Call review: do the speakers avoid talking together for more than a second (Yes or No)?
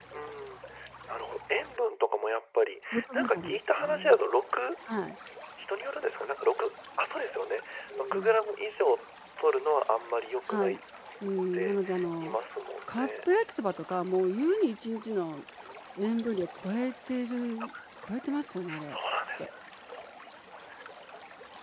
No